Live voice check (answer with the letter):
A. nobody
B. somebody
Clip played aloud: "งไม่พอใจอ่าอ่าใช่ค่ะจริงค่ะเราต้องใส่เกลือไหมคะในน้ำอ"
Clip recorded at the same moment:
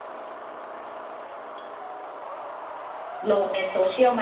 B